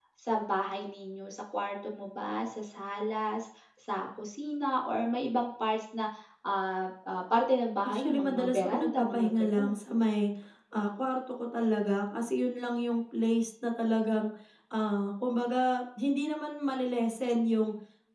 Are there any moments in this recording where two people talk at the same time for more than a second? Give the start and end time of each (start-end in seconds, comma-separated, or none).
7.9-9.7